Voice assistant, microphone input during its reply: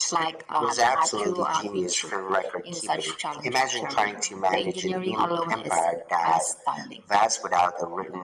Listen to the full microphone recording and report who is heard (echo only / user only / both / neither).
echo only